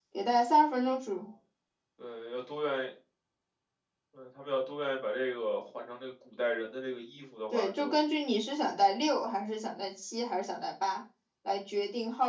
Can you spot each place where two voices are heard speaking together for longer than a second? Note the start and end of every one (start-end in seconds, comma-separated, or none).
none